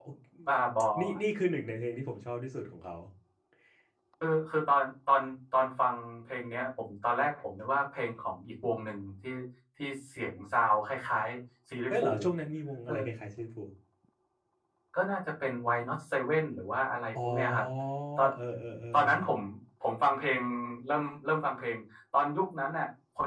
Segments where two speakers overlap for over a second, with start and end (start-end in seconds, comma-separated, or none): none